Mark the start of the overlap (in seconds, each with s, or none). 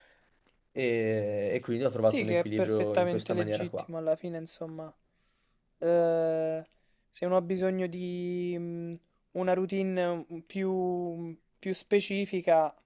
2.1 s